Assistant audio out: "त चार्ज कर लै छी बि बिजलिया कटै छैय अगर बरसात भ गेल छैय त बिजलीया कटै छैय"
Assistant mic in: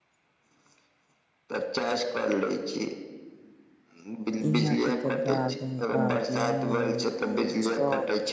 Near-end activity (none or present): present